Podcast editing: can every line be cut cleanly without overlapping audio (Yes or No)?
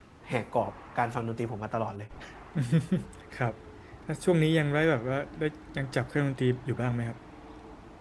Yes